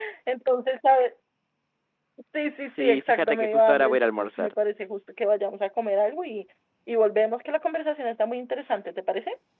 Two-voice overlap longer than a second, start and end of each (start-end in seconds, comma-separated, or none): 2.8-4.5